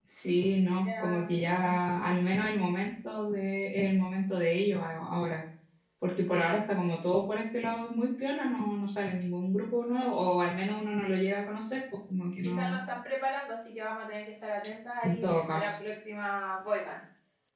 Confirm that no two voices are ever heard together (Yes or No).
No